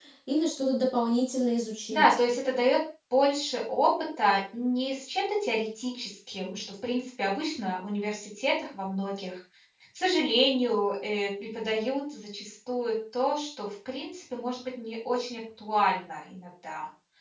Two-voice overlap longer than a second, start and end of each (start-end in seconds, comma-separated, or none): none